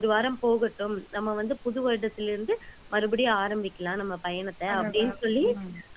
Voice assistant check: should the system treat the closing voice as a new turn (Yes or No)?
No